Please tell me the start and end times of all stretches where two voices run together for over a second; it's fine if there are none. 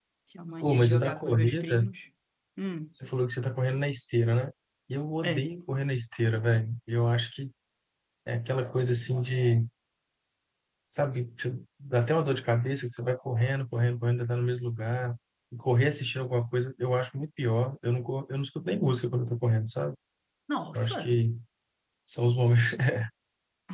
0.6-1.9

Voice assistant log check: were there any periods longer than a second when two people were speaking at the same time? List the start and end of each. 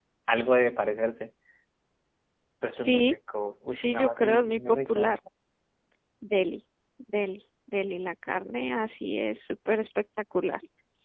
3.7-5.1

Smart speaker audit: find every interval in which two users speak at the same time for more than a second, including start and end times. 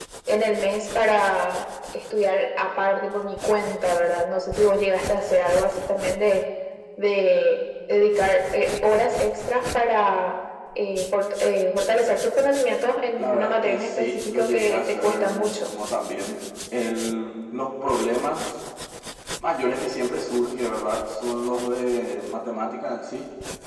13.2-15.7

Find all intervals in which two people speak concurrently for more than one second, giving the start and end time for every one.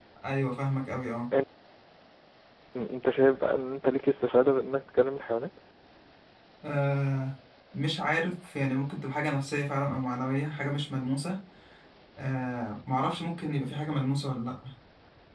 none

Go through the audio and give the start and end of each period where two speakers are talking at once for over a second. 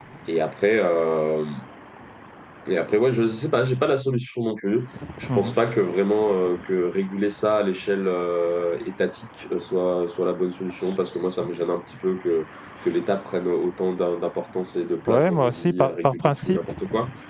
15.1-16.6

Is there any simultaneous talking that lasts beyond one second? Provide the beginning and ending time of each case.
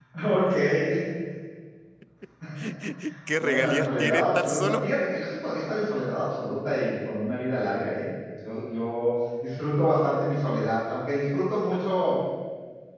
3.4-4.9

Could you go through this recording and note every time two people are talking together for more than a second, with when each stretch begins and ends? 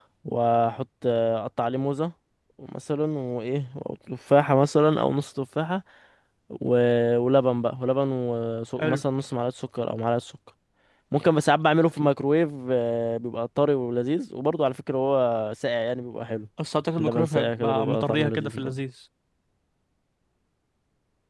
17.0-18.8

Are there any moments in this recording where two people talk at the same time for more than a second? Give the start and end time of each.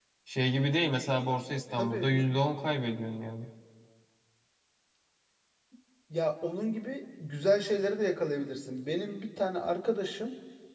none

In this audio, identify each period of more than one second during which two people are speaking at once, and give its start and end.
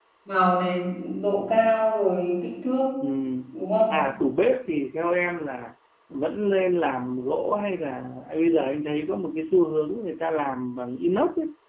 none

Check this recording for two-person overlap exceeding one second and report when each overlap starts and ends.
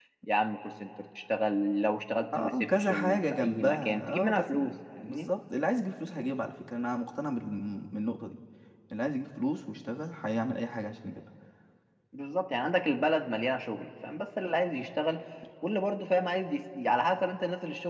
2.4-4.5

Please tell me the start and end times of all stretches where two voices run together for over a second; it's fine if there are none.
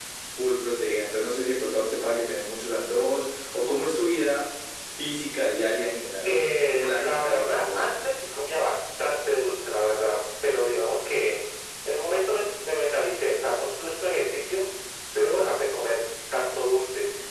6.2-7.9

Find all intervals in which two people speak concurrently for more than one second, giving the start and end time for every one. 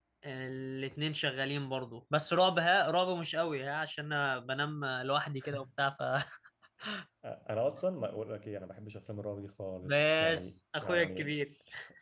9.8-11.3

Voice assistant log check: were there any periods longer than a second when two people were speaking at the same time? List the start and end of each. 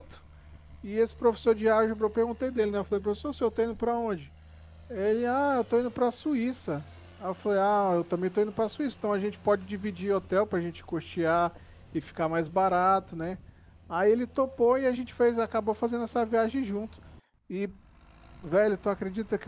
none

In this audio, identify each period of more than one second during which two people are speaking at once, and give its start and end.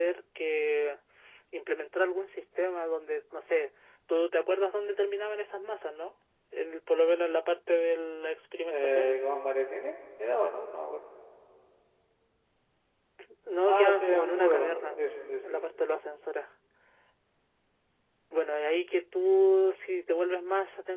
13.7-15.0

